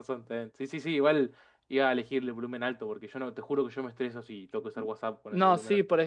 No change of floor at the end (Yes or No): No